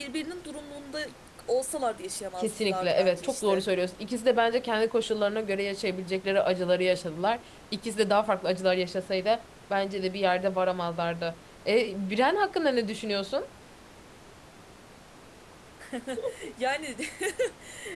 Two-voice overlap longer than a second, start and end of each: 2.4-3.6

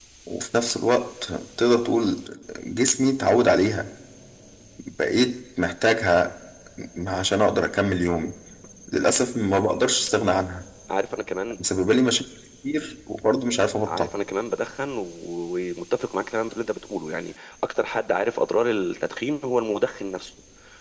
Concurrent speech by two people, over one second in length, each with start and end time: none

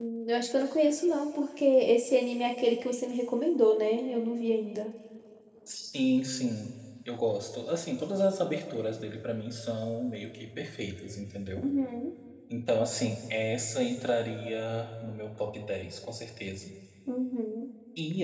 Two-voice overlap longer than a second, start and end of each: none

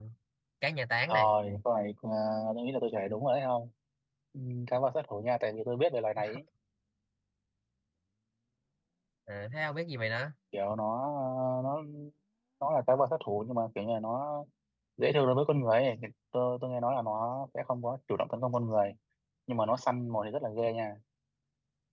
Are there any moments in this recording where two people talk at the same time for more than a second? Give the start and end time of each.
none

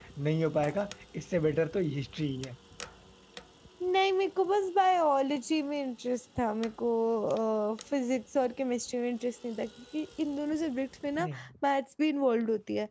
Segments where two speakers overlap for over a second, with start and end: none

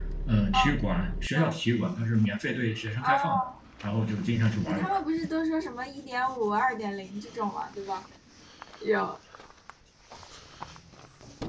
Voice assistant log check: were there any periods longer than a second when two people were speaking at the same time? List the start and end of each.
none

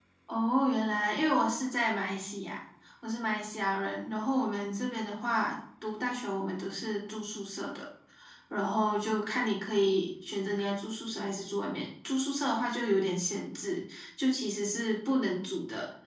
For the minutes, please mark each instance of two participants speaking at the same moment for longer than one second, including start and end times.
none

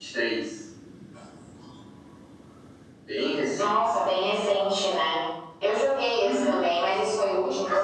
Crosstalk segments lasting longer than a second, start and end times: none

